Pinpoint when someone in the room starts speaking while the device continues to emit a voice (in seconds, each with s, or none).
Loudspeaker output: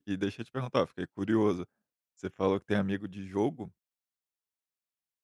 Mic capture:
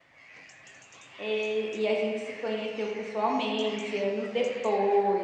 1.2 s